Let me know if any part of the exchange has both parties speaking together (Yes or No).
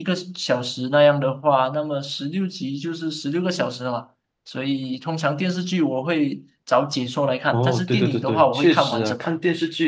Yes